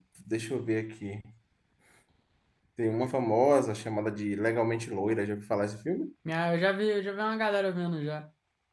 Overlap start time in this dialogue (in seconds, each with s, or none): none